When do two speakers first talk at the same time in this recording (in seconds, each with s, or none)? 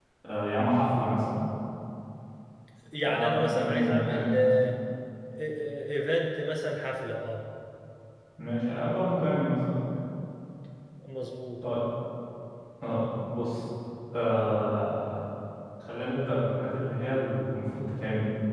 3.1 s